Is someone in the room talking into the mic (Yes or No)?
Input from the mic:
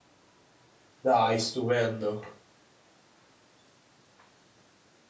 Yes